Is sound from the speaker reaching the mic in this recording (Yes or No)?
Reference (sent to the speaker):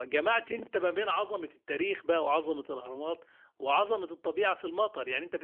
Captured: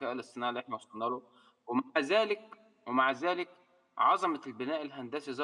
No